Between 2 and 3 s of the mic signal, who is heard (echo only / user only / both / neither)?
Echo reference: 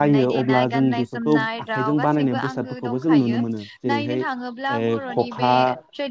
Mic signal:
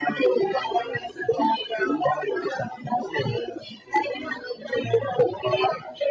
echo only